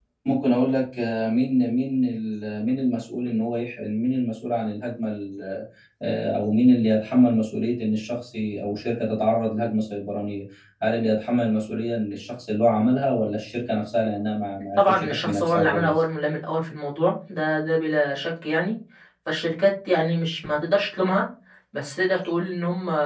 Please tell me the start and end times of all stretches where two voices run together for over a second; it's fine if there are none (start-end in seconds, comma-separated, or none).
14.8-16.0